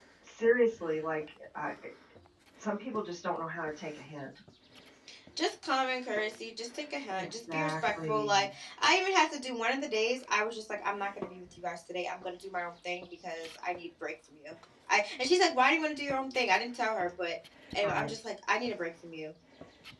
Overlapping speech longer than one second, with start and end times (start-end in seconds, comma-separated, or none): 7.2-8.5